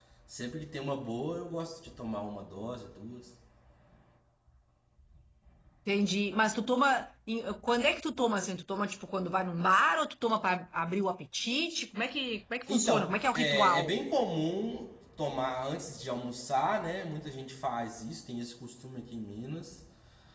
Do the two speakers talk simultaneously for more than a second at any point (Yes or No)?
Yes